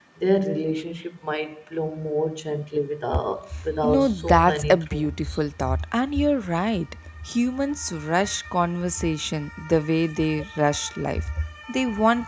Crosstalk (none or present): present